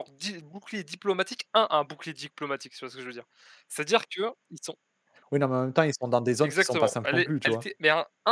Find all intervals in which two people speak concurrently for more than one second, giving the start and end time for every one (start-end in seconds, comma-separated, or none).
6.4-7.6